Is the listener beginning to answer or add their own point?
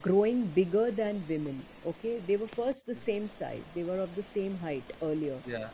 No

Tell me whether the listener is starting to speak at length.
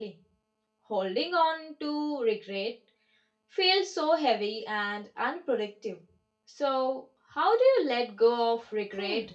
Yes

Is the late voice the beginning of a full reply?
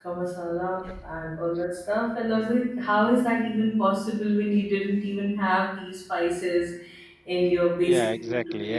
Yes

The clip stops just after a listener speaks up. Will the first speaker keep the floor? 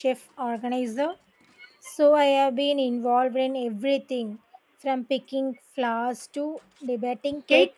No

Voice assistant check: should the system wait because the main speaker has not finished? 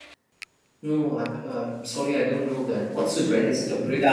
No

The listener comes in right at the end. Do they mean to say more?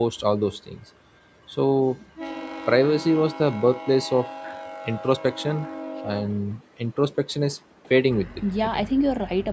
Yes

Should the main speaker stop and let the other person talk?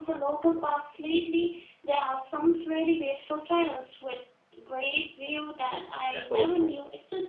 Yes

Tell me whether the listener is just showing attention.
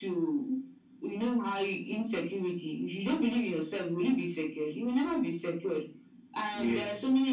Yes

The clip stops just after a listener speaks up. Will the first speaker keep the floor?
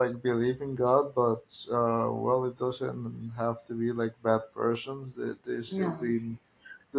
Yes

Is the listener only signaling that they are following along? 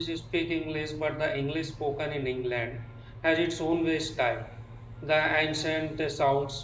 Yes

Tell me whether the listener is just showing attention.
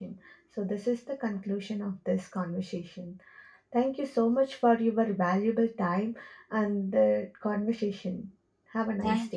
No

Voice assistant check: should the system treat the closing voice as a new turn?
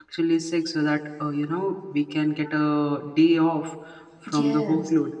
No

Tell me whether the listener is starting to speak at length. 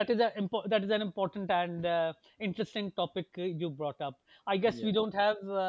No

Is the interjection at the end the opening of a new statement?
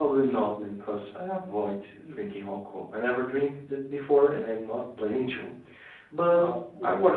No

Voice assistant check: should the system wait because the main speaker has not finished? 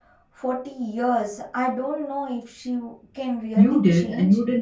No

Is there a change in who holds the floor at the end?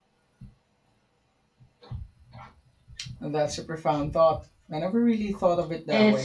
Yes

